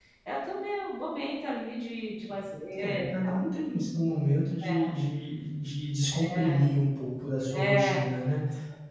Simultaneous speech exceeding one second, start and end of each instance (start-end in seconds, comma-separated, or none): none